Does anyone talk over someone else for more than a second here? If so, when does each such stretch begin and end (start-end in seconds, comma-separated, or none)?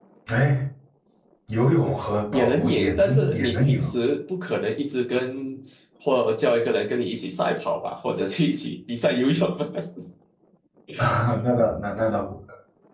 2.3-3.8